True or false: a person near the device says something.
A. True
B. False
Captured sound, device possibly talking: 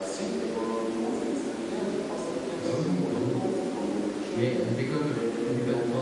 A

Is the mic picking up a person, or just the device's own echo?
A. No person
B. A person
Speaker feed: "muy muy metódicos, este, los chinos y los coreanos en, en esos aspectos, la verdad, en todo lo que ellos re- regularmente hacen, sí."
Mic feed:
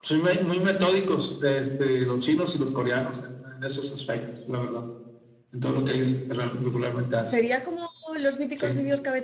B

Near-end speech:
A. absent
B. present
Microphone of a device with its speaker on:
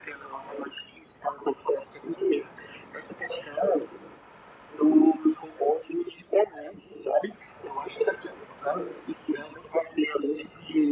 A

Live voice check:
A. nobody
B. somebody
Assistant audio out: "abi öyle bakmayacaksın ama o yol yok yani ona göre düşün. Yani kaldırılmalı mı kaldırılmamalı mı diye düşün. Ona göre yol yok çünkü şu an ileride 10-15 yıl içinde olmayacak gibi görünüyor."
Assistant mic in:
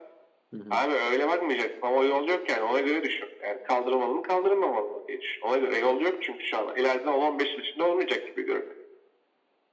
B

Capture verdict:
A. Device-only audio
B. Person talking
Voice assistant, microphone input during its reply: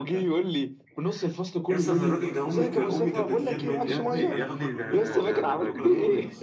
B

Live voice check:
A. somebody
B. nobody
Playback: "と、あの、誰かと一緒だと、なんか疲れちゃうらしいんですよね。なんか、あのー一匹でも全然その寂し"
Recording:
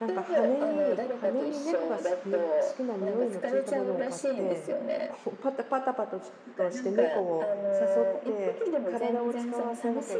A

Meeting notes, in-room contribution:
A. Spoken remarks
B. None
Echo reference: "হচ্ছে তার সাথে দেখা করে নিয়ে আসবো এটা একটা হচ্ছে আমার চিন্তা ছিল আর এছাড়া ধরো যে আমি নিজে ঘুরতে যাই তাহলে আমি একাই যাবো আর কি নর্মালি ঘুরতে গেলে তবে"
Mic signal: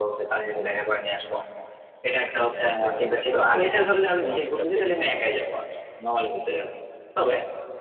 A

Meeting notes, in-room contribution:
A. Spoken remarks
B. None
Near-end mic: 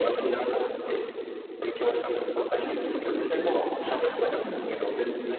A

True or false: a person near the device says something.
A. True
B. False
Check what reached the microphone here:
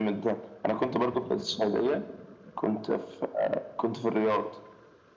B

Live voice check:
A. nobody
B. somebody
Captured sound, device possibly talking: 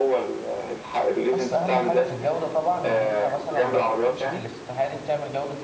B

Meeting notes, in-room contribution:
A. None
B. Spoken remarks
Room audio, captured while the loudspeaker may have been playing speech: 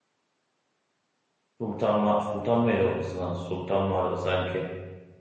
B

